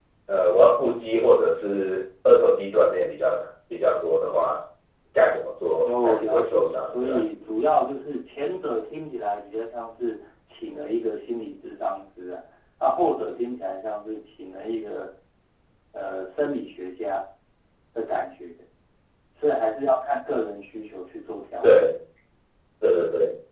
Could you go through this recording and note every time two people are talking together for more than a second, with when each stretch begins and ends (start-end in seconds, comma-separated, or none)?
5.8-7.2